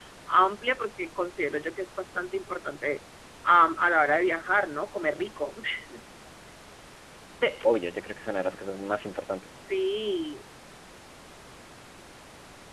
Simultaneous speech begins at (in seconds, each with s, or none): none